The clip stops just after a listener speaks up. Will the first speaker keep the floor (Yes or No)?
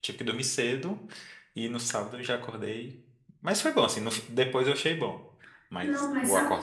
No